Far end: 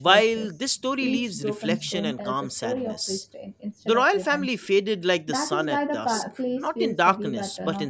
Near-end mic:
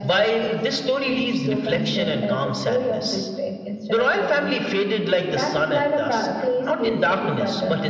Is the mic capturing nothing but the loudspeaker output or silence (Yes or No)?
Yes